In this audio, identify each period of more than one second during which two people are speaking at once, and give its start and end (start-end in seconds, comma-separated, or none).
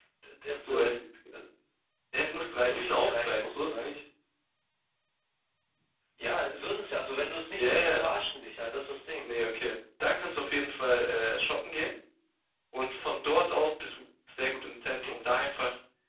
2.6-3.9